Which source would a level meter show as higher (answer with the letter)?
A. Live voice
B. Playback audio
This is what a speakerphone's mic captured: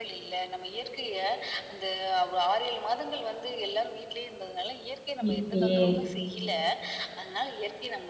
A